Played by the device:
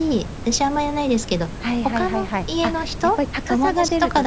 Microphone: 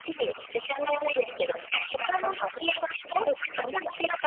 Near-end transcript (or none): none